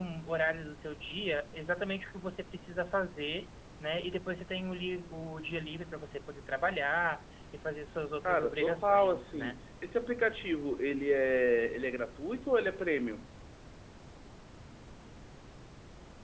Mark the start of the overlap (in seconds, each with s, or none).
8.2 s